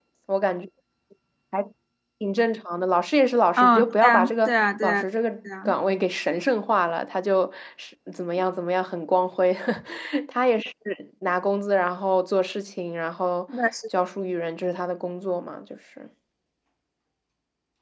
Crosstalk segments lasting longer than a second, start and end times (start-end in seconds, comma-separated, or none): 3.6-5.0